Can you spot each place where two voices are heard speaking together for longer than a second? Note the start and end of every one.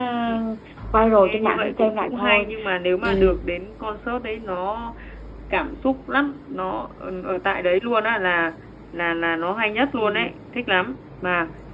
1.1-2.5

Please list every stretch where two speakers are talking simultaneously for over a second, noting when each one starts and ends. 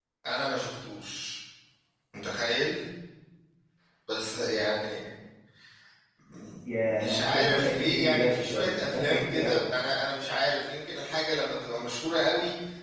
7.0-9.6

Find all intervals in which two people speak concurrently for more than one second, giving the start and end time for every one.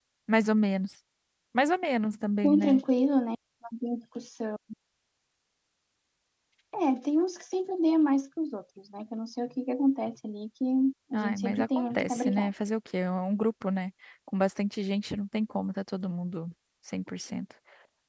11.1-12.5

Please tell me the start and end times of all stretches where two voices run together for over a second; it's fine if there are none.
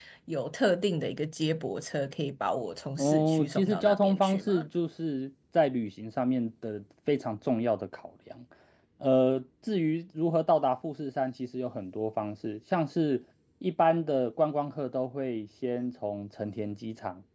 3.0-4.6

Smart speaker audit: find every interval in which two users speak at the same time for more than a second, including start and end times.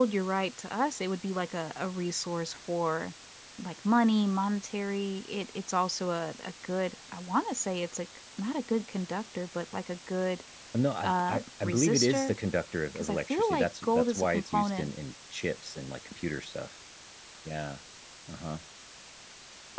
11.0-12.3, 12.9-14.9

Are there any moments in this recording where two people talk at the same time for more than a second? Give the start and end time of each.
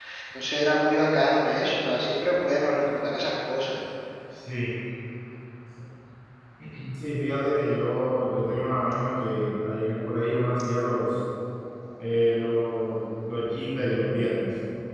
none

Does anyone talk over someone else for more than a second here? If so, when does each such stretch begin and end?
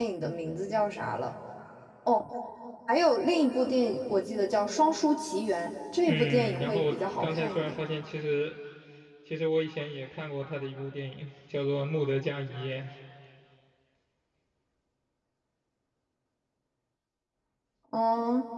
6.0-7.8

